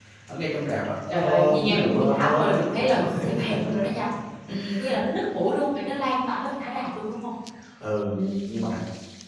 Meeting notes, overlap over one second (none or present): present